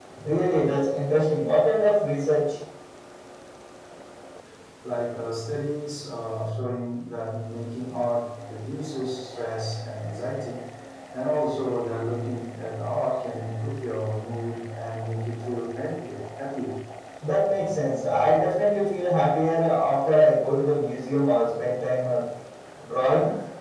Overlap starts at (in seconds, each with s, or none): none